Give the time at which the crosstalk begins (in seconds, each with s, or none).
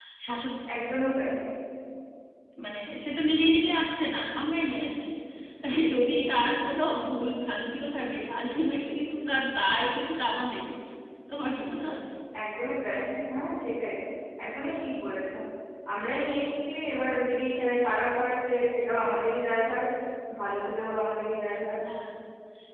none